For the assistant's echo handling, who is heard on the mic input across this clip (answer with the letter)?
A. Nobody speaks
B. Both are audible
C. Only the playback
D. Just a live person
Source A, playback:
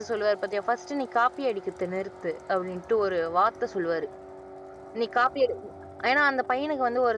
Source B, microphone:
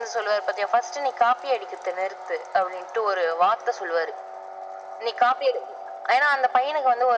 C